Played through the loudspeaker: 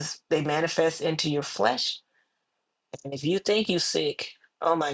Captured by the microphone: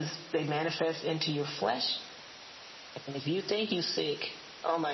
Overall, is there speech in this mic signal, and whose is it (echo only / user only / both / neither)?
echo only